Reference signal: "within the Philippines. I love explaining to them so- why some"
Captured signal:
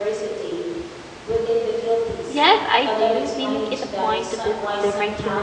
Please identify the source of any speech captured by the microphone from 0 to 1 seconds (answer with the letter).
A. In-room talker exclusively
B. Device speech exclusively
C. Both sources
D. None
B